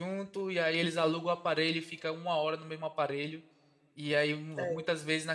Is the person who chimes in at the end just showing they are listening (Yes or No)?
Yes